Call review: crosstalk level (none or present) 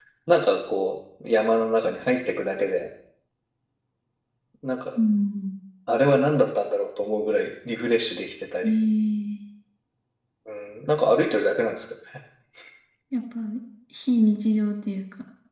none